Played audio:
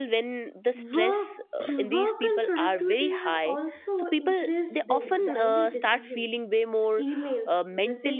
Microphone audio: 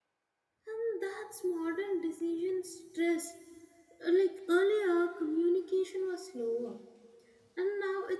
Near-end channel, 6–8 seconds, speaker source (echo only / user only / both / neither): user only